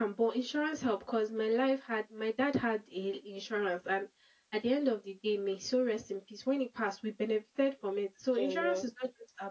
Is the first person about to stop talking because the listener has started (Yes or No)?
No